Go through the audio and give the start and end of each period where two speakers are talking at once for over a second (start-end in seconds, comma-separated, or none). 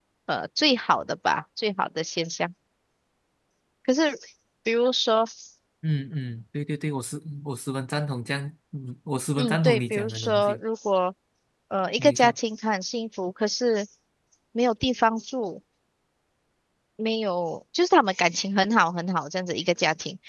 9.4-10.6